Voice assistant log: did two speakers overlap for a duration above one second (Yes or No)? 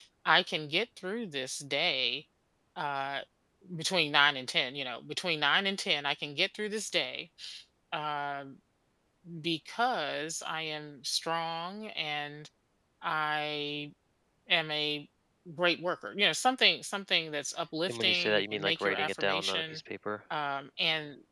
Yes